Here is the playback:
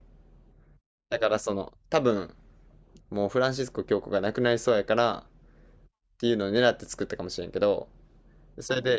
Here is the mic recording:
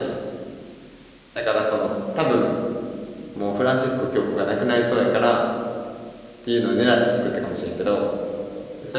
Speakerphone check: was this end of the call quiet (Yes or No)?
Yes